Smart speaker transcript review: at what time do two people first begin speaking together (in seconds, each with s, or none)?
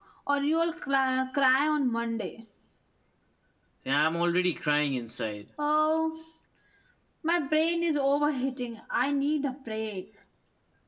none